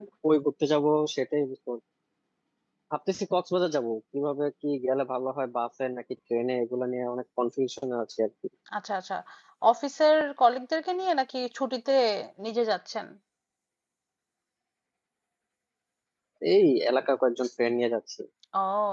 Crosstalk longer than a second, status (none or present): none